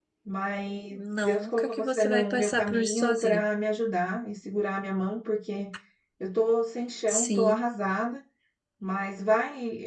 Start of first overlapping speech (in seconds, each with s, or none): 1.0 s